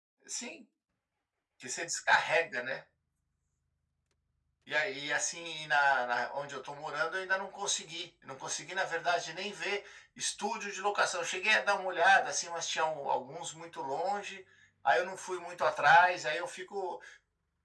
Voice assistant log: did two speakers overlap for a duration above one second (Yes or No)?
No